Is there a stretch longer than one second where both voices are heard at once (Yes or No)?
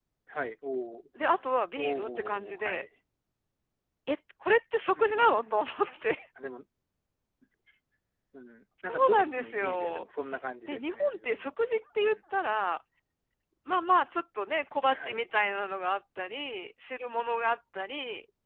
Yes